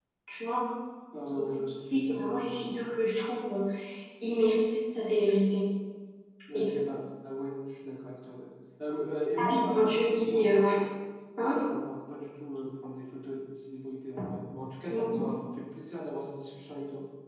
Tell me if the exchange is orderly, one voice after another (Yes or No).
No